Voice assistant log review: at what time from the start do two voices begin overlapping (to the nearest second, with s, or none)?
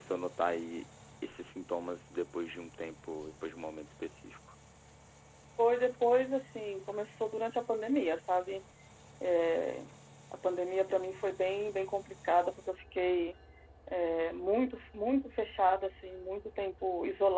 none